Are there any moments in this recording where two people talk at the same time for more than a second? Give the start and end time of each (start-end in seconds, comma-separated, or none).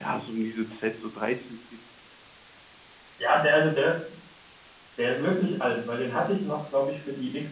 none